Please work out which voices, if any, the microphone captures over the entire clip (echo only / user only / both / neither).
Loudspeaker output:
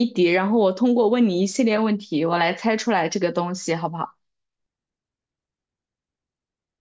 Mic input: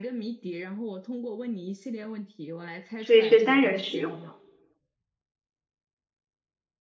both